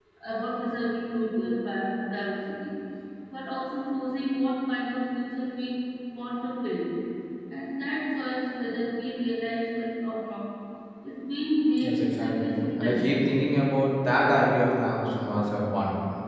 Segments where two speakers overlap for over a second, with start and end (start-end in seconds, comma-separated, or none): 11.8-13.2